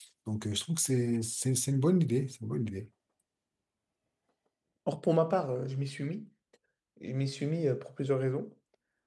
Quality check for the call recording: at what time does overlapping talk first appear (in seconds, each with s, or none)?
none